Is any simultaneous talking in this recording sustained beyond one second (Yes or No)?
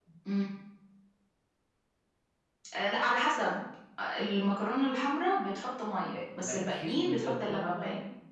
Yes